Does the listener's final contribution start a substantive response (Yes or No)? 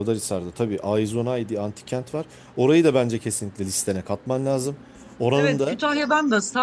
Yes